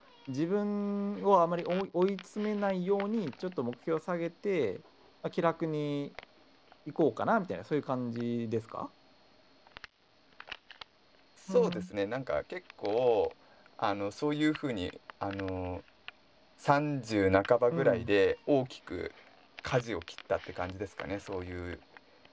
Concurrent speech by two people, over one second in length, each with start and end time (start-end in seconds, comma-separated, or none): none